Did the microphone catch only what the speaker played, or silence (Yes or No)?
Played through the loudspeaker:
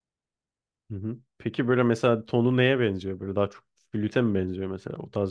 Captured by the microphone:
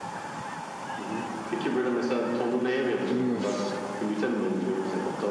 No